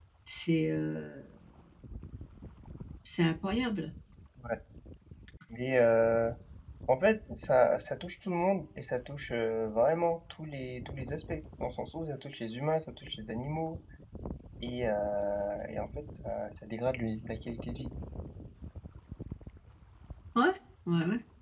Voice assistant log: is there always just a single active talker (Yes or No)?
Yes